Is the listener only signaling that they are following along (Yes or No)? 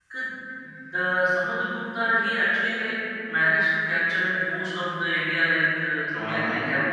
No